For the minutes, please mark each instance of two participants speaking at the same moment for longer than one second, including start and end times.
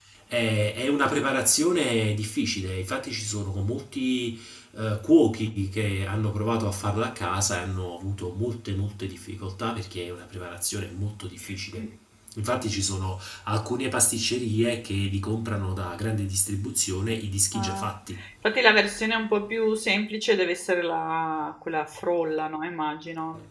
none

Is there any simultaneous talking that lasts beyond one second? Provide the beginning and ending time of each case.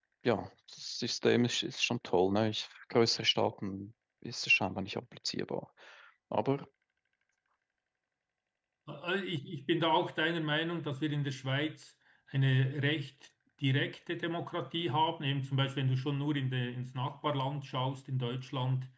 none

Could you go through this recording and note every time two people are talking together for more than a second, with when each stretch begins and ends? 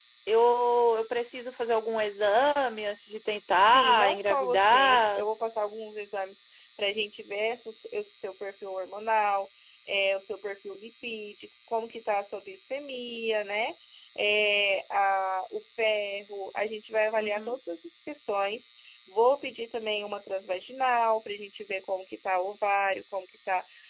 3.7-5.2

